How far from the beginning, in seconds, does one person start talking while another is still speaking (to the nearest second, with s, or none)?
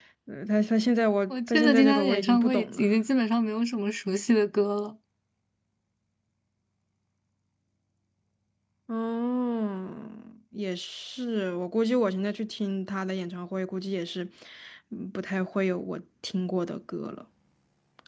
1 s